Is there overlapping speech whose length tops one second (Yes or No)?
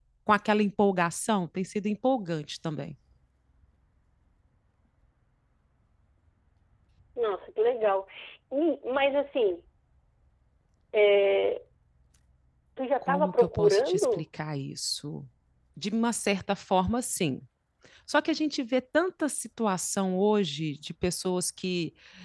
Yes